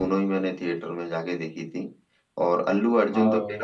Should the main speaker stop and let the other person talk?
No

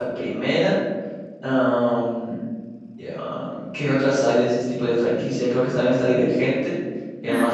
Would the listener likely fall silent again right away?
Yes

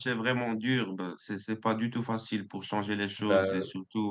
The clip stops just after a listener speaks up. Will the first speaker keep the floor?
Yes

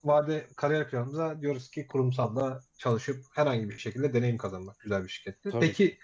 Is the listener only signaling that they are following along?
Yes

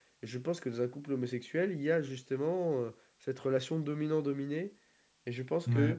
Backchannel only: Yes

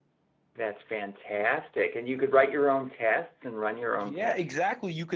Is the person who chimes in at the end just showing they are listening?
No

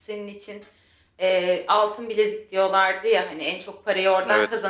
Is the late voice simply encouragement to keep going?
Yes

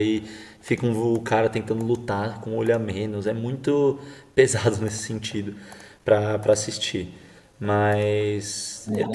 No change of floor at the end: No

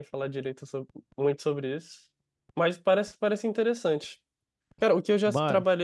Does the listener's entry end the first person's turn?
No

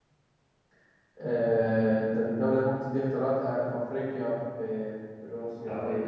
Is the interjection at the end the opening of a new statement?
Yes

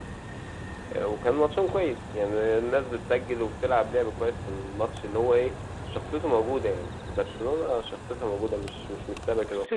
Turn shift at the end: Yes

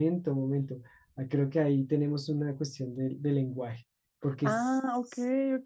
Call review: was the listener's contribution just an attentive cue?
No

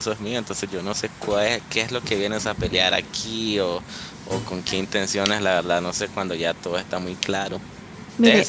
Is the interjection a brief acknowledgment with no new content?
Yes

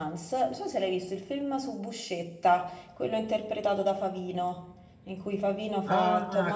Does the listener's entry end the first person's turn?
Yes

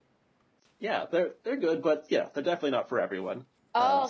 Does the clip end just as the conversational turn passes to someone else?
Yes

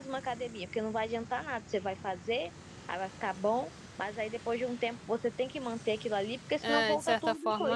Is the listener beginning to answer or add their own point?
Yes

